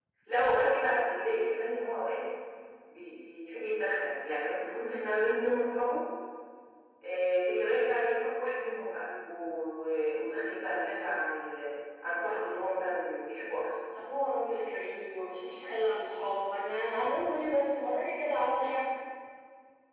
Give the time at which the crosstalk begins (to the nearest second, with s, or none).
none